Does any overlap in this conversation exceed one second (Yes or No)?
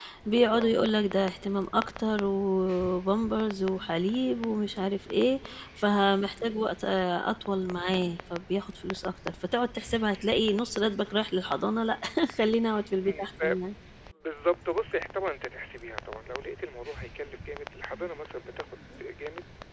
No